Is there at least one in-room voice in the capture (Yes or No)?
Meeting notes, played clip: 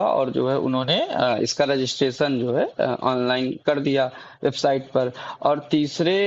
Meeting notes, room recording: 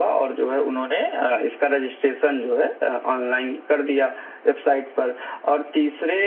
No